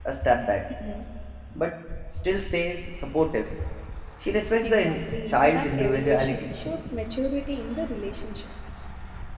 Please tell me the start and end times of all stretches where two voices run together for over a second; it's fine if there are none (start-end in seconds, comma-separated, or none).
4.6-6.5